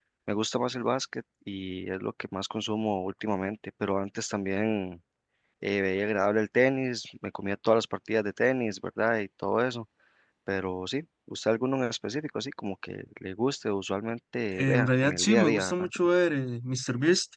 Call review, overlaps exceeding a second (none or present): present